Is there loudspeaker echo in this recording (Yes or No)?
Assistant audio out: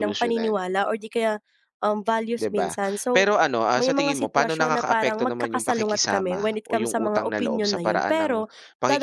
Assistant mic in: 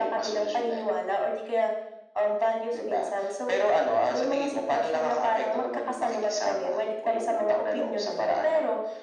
Yes